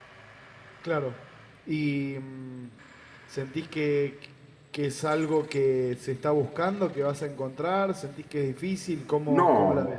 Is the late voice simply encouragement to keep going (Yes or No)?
No